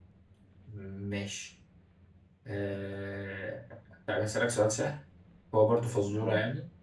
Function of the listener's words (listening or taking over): listening